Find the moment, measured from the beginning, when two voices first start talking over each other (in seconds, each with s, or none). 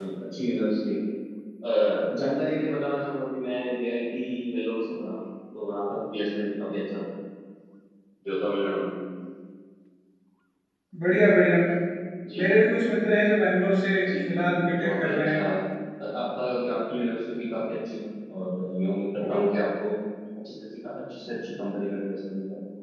14.1 s